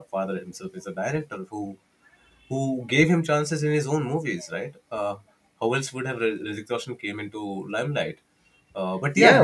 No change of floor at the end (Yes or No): No